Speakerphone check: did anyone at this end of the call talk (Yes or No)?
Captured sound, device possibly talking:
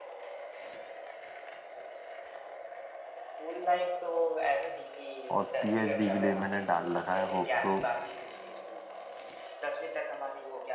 Yes